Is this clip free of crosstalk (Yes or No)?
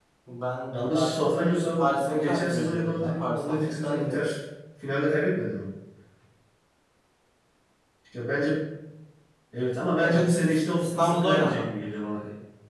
No